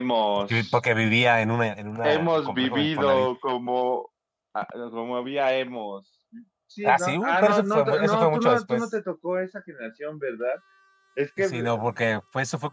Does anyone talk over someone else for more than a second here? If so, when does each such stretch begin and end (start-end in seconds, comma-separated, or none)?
2.0-3.3, 6.8-8.9